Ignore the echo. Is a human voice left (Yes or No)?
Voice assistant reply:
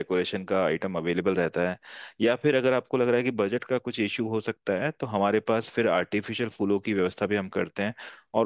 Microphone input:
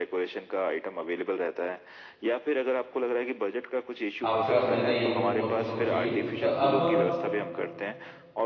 Yes